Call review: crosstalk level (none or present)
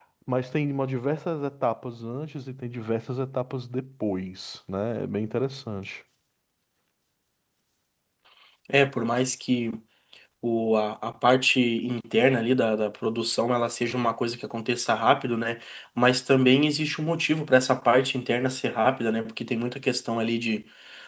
none